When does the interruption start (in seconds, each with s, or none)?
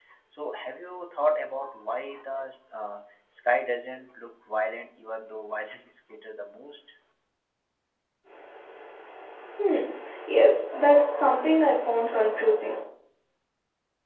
none